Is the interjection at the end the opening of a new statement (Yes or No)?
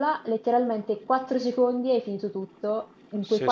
No